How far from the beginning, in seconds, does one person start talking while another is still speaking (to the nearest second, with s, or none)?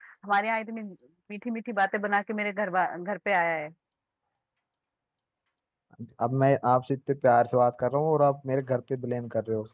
none